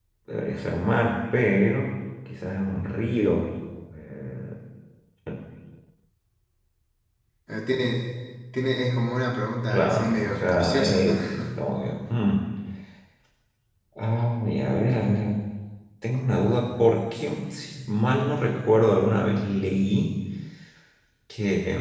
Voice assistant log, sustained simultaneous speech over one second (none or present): present